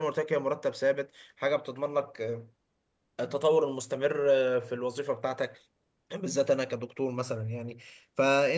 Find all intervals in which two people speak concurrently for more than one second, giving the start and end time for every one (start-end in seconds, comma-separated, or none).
none